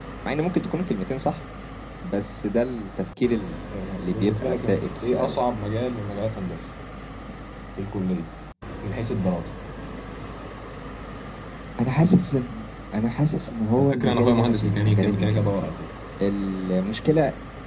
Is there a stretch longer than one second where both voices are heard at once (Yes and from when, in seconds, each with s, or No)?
Yes, from 4.0 s